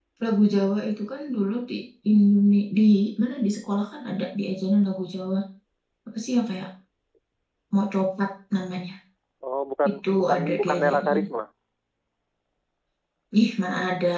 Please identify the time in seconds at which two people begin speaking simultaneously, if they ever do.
9.9 s

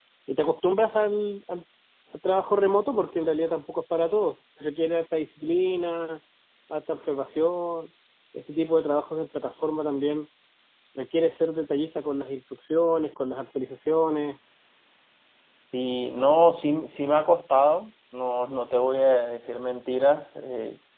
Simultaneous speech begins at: none

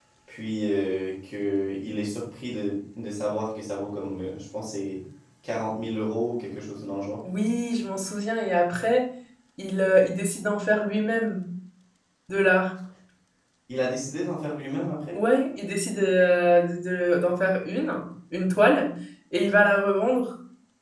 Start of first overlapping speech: none

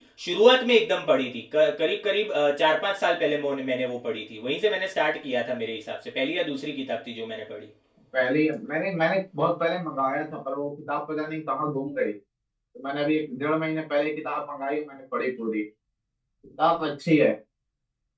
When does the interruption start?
none

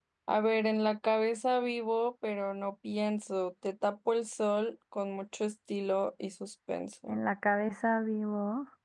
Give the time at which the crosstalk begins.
none

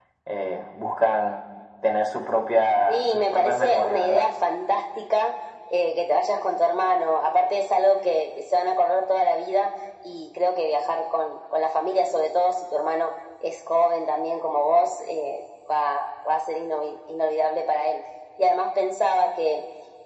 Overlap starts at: 2.9 s

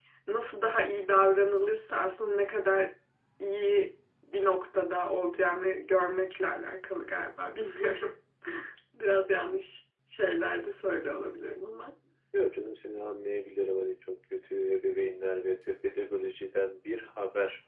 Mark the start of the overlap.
none

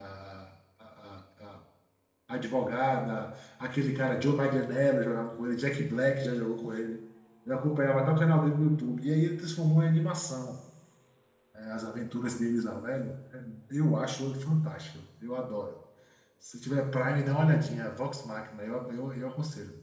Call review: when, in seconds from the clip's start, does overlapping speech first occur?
none

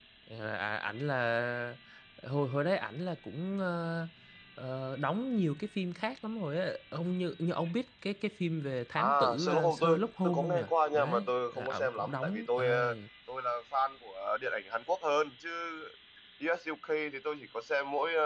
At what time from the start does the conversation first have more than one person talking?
9.0 s

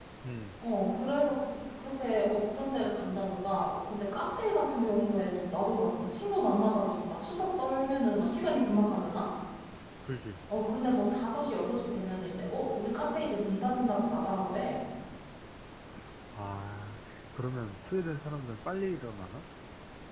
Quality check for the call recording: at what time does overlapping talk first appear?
none

